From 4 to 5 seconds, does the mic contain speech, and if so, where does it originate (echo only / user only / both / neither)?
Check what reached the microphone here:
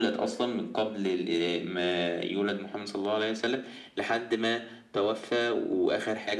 echo only